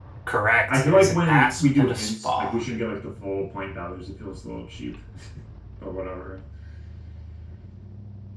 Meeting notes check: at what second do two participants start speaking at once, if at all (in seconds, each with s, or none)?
0.7 s